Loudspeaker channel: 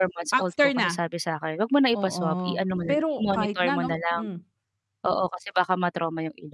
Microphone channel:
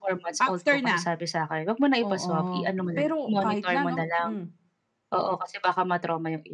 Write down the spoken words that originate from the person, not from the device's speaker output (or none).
none